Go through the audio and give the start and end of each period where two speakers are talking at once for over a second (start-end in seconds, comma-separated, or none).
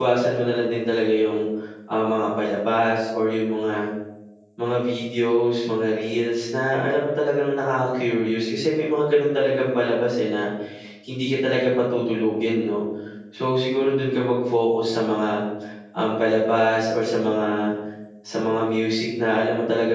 none